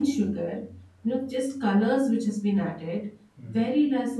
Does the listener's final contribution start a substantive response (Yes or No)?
No